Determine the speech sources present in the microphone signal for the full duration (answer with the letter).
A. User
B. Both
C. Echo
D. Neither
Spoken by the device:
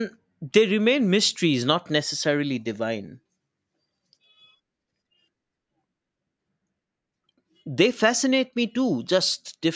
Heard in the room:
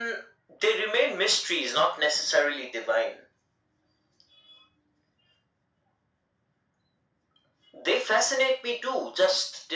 C